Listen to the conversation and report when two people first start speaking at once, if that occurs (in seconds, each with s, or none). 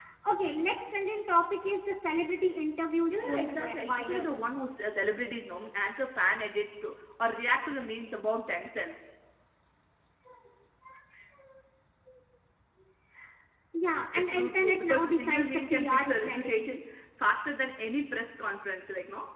3.1 s